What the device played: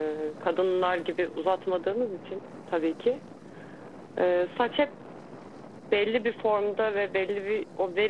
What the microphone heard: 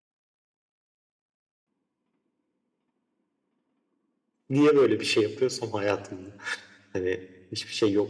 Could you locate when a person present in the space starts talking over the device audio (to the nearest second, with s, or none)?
4 s